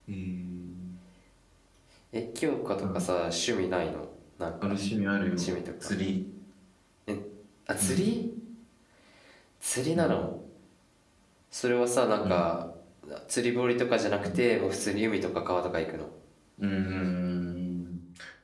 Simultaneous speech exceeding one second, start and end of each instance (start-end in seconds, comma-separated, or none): none